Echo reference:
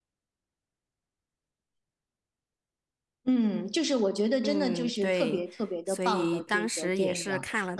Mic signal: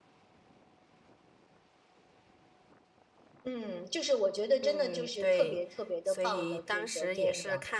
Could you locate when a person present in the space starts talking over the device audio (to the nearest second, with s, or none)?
none